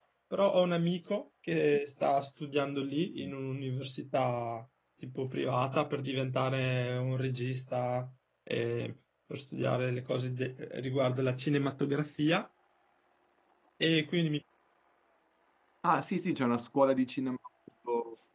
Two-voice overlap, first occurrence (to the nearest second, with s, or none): none